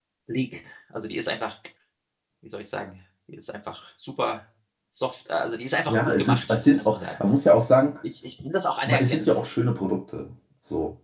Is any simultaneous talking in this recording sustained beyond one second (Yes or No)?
Yes